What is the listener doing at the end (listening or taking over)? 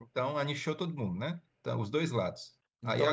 listening